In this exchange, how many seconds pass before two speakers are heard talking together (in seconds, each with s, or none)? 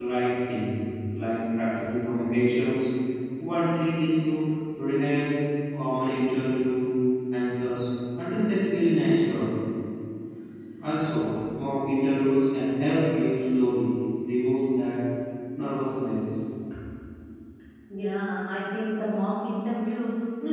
none